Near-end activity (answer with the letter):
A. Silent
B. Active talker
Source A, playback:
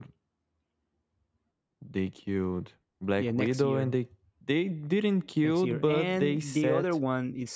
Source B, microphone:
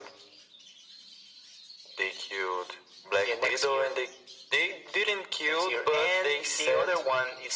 A